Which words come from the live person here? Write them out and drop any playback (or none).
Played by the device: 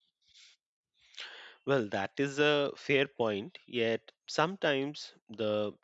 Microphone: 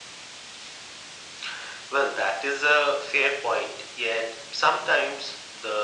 none